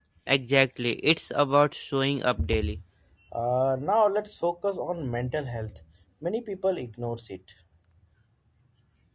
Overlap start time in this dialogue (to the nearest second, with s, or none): none